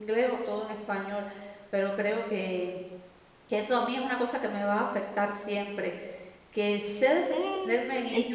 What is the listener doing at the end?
listening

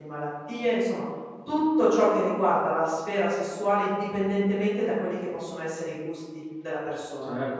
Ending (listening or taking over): taking over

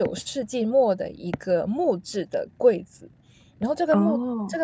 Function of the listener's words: listening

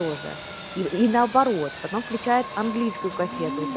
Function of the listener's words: listening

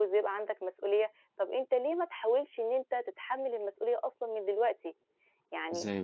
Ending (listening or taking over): listening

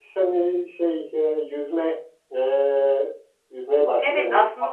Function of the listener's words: taking over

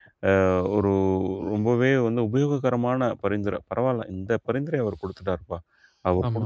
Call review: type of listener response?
listening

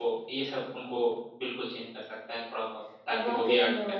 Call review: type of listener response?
taking over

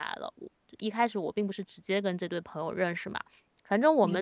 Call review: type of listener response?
listening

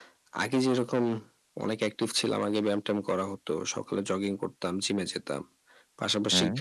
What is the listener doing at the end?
listening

